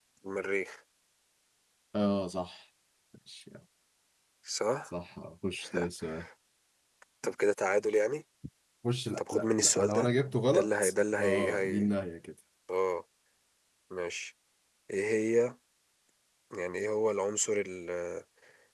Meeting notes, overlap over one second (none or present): present